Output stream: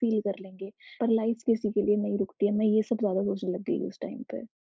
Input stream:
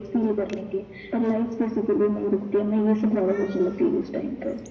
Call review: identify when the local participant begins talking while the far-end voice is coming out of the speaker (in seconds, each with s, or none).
none